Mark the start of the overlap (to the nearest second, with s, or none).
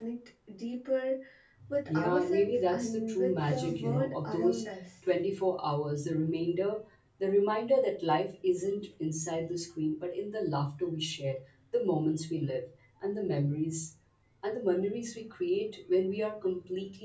2 s